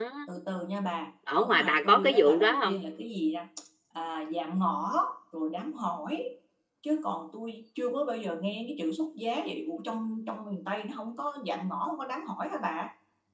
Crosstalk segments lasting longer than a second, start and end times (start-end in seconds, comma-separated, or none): 1.4-2.8